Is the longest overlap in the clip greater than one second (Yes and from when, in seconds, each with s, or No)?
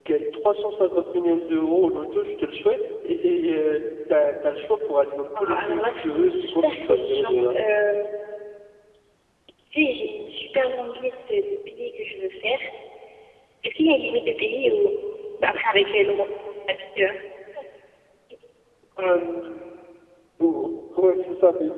Yes, from 5.3 s